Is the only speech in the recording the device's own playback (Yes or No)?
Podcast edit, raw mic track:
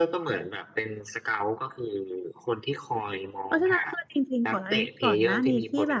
No